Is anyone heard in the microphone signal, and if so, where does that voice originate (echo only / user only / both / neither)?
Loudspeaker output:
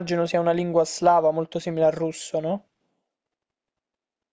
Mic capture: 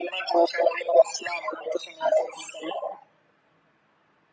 echo only